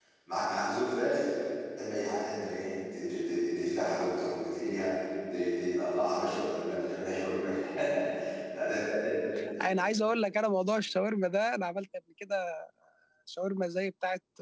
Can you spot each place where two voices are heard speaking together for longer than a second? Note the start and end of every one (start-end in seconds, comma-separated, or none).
none